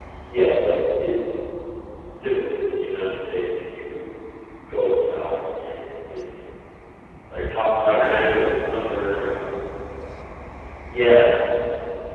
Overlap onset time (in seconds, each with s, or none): 7.7 s